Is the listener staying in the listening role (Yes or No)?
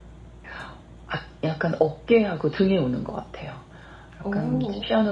Yes